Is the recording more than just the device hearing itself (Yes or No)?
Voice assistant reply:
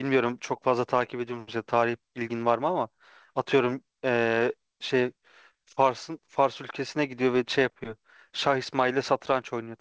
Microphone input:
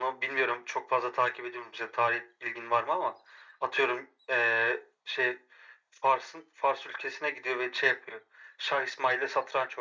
No